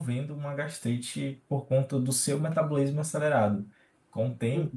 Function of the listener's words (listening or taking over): listening